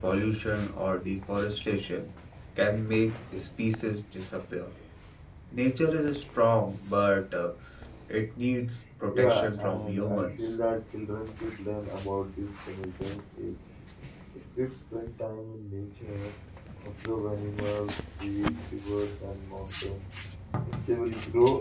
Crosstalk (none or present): present